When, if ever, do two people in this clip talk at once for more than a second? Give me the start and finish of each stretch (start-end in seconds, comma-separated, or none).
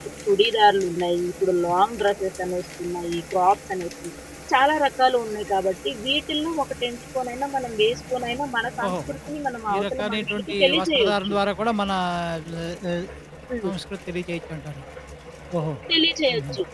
9.7-11.3